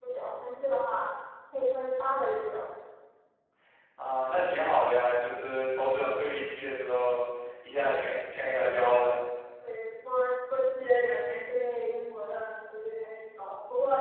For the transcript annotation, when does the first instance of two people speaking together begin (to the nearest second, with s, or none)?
none